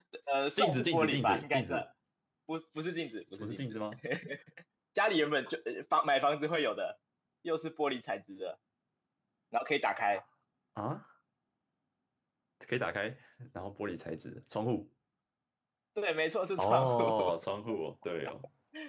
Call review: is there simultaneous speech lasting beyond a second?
Yes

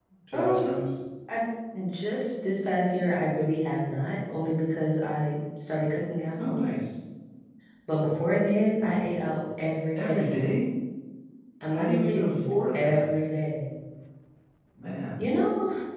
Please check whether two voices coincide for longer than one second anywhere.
Yes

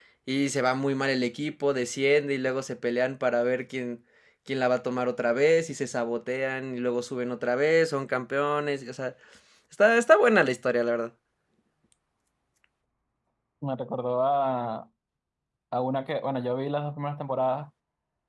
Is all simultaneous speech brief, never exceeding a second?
Yes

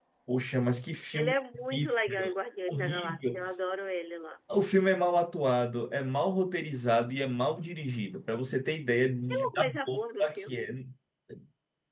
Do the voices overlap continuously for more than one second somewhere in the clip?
Yes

